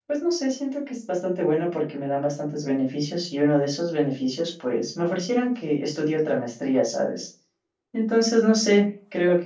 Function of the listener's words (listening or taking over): listening